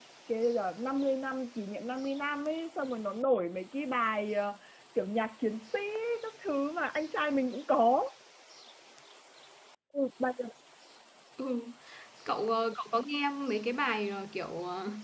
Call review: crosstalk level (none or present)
none